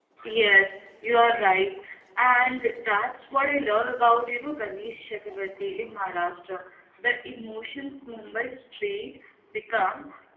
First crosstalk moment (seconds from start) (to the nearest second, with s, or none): none